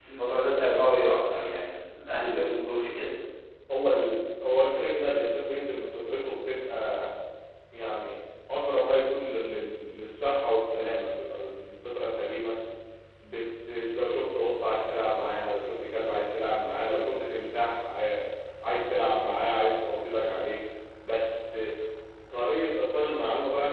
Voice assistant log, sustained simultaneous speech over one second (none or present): none